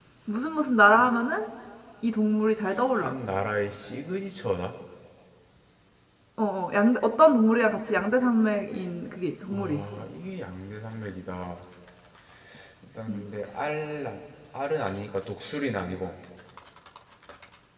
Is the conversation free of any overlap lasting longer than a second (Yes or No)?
Yes